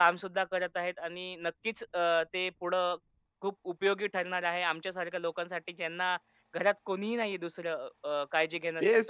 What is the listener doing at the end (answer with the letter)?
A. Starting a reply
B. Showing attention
A